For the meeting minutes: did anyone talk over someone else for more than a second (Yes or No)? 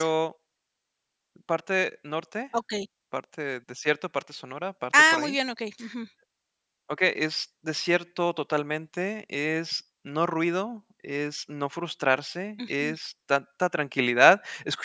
No